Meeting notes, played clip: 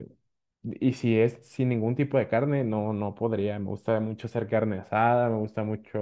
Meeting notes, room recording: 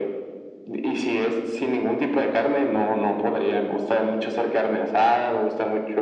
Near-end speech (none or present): none